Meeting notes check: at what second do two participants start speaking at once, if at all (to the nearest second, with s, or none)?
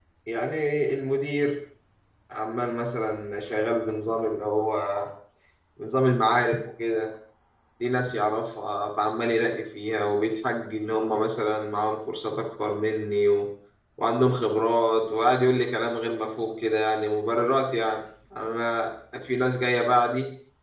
none